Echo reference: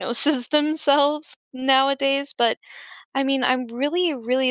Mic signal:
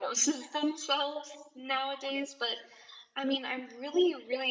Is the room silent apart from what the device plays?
Yes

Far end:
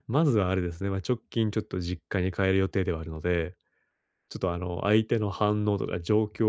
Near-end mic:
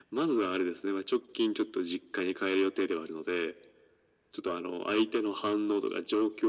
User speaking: No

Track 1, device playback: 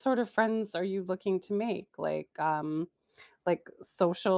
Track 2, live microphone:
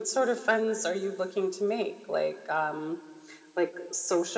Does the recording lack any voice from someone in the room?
Yes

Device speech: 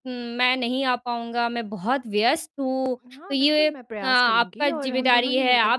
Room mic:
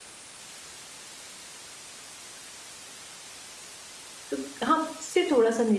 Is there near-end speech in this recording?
Yes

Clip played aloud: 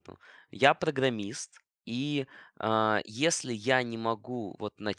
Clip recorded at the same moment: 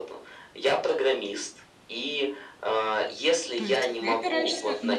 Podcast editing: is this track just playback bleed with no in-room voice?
No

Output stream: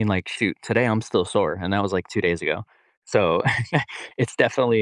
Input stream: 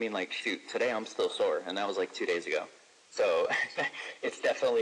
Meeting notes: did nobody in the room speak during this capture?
Yes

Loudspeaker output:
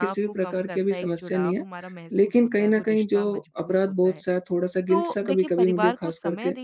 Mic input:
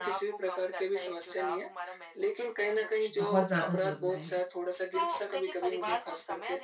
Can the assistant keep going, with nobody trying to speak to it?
No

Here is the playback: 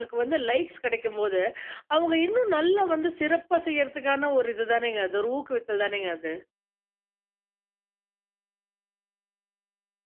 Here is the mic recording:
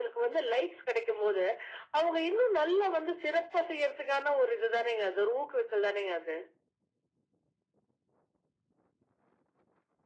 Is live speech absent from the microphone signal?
Yes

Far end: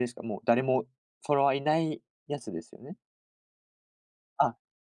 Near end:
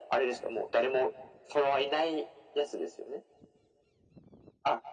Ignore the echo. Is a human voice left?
No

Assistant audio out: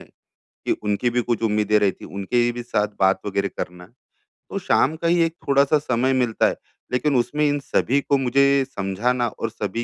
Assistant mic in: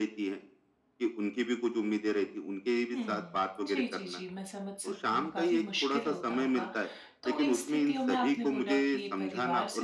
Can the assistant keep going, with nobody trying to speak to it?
No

